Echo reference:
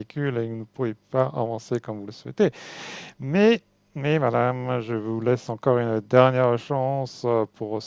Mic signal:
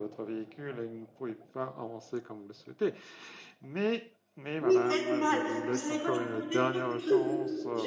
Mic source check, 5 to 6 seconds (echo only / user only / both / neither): both